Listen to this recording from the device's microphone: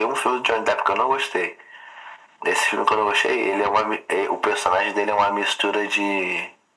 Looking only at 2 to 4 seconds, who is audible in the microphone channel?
echo only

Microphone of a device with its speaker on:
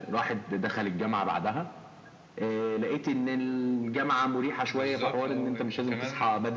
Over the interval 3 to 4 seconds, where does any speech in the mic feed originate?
echo only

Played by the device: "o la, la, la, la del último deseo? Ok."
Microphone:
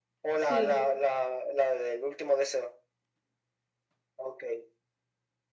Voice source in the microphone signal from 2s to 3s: echo only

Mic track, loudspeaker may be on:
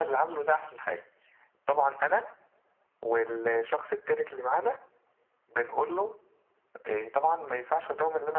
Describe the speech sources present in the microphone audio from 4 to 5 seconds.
echo only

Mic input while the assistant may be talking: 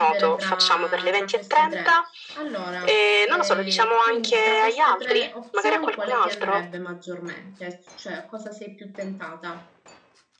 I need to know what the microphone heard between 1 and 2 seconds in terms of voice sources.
both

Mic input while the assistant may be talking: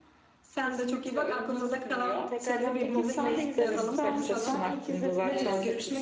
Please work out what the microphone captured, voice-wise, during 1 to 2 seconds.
echo only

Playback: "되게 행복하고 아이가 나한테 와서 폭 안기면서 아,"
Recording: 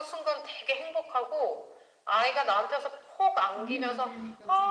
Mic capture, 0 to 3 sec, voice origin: echo only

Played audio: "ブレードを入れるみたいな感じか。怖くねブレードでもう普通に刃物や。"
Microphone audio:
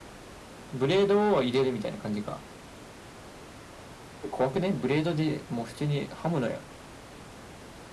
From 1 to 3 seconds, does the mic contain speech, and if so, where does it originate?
echo only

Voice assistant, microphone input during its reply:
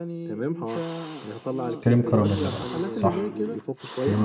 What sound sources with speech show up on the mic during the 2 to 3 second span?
both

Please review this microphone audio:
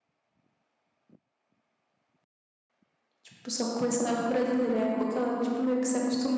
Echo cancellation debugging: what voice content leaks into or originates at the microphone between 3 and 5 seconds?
user only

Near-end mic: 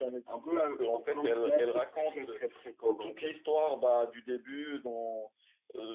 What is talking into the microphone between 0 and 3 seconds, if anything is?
both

